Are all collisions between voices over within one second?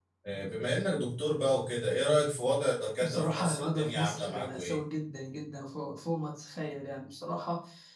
No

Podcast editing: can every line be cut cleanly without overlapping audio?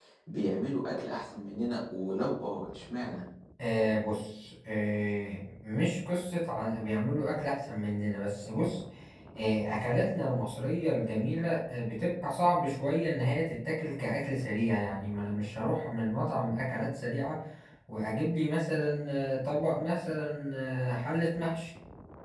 Yes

